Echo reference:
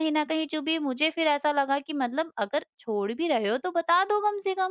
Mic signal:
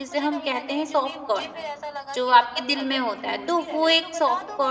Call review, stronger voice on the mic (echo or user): user